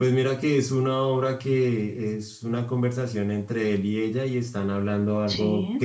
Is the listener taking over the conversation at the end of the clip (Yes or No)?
No